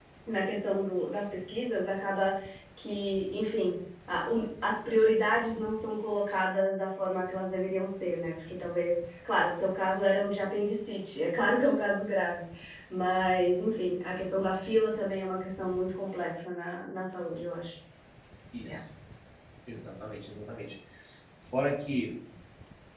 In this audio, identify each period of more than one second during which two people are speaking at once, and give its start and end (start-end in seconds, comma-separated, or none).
none